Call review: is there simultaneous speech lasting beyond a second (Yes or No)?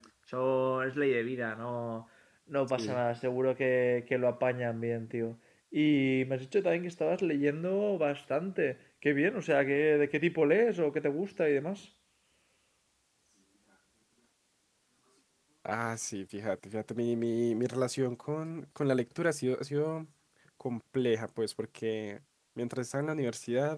No